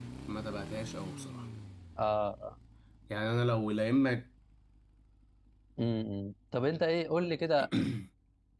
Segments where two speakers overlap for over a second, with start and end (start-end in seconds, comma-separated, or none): none